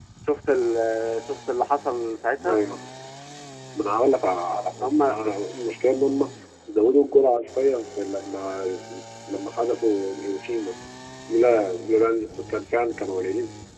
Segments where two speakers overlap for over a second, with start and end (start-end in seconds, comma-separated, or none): none